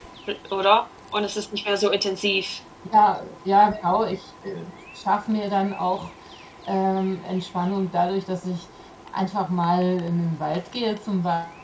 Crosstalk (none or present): none